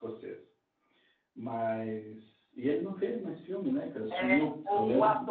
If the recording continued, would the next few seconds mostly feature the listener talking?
Yes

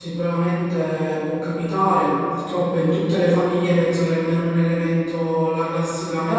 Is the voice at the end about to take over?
Yes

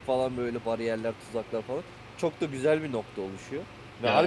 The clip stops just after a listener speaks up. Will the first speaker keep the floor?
Yes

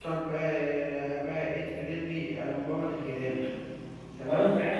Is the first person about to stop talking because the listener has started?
Yes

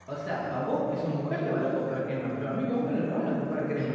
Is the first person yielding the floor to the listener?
Yes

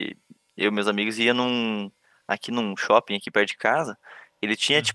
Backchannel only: Yes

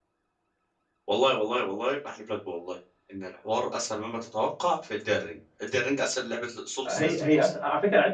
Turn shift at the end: Yes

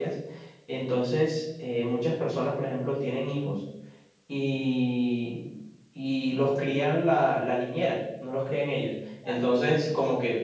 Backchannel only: Yes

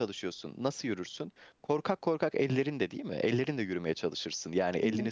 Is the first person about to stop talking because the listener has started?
No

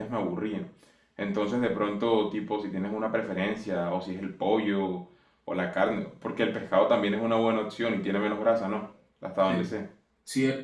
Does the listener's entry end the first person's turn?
Yes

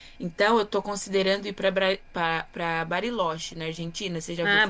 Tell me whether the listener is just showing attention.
No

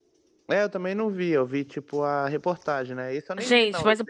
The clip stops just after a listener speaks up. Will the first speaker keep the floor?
No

